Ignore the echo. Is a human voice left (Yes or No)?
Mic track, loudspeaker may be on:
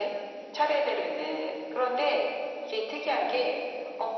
No